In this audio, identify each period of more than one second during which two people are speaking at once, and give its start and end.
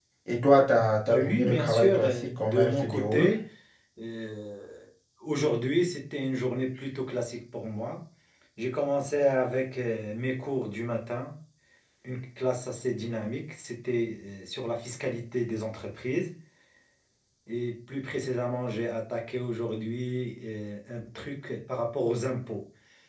1.1-3.3

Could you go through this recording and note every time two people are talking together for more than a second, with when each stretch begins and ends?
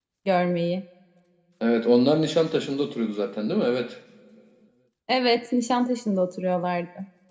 none

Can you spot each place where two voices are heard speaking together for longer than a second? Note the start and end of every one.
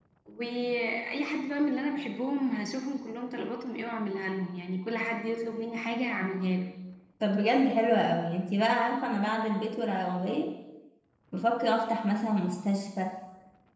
none

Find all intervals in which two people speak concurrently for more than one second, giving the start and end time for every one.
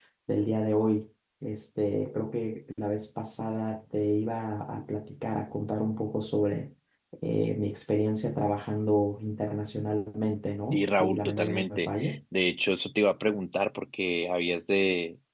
10.7-12.2

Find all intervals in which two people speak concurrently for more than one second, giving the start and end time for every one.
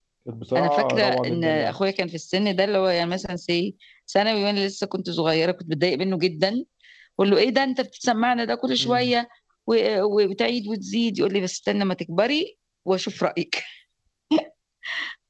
0.6-1.8

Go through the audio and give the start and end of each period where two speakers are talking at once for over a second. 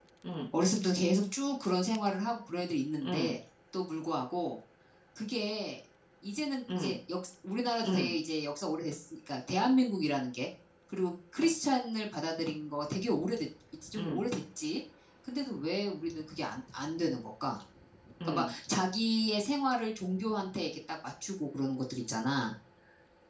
none

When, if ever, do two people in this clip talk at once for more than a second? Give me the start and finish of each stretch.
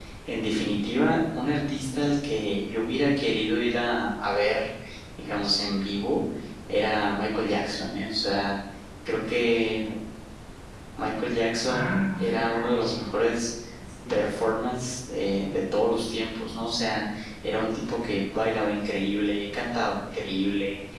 11.7-12.9

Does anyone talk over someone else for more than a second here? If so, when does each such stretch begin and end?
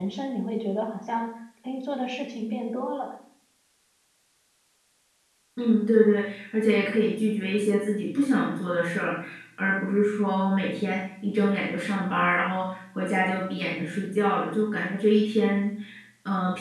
none

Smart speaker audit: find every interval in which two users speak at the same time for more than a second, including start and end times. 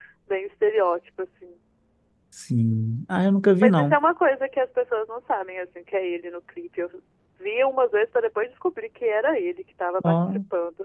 none

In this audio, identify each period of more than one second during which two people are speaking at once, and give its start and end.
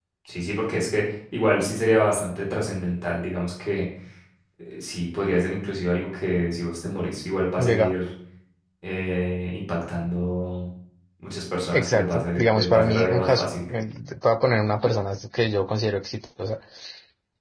11.7-13.5

